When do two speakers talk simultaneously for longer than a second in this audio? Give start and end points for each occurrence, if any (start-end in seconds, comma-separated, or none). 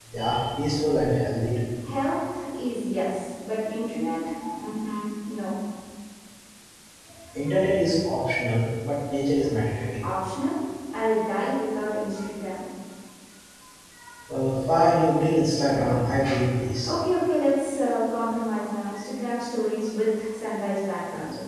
none